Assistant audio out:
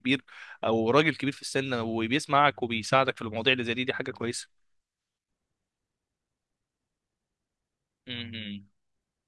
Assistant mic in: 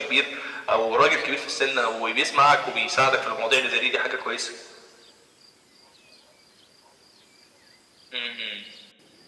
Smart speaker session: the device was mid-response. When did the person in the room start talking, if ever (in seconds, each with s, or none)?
none